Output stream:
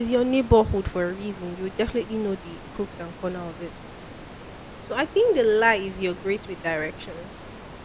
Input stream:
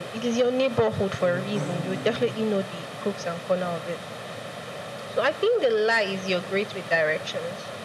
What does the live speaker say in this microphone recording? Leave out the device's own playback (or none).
So, that's the lie.